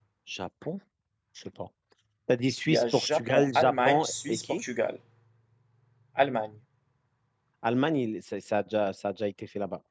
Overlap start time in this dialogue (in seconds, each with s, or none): 2.7 s